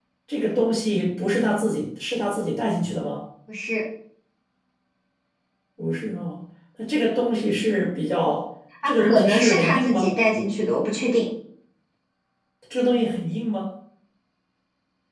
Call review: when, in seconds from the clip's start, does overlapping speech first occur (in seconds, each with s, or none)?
8.8 s